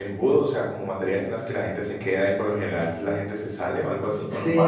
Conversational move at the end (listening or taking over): taking over